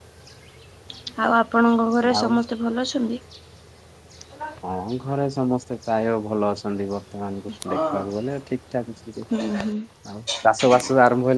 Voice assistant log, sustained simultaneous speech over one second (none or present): none